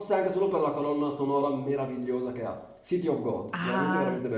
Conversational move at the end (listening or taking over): taking over